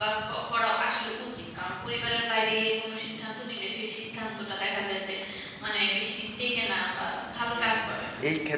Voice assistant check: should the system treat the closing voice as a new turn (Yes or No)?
Yes